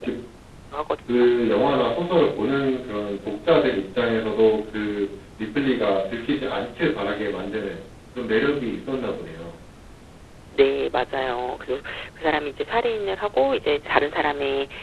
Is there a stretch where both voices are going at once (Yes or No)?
No